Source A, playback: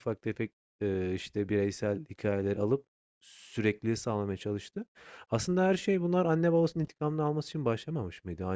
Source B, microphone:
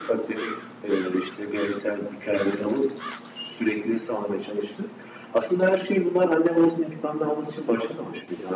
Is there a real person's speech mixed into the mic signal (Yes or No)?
No